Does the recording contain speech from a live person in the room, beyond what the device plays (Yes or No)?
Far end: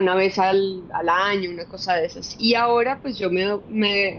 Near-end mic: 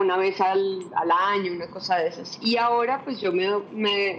No